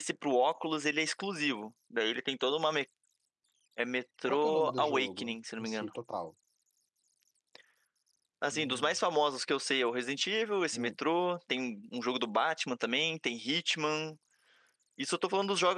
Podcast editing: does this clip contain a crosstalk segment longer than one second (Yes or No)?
Yes